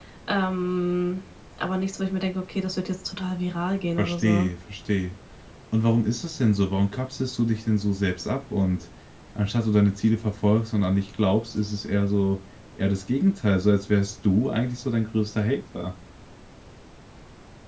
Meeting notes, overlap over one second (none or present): none